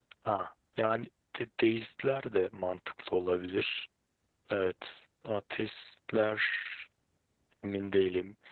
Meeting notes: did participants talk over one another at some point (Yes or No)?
No